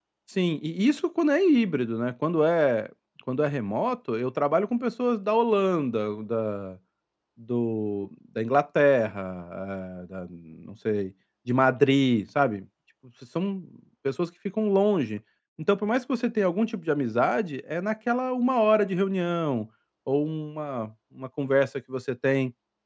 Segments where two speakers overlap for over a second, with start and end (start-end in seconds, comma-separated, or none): none